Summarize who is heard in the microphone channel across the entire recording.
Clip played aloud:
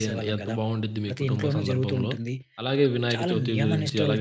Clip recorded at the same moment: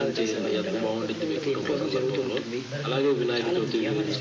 both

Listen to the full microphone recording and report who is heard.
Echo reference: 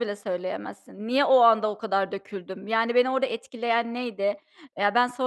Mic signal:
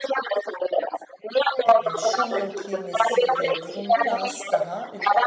both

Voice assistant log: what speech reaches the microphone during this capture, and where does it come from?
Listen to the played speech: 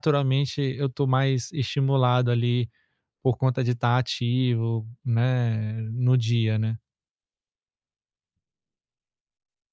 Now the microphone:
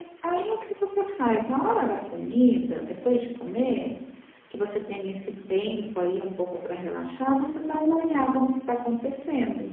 user only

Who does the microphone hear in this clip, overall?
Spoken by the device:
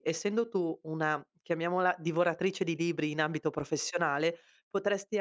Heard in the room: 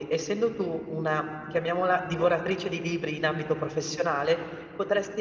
echo only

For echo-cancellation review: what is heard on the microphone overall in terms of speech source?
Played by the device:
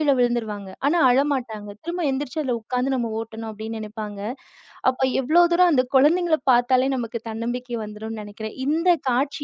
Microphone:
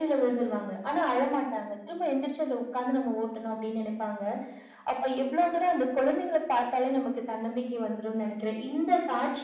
echo only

